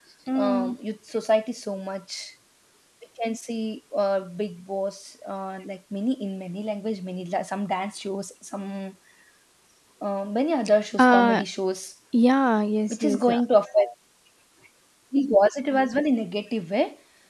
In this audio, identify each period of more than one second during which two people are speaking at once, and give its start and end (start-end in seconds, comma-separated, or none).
none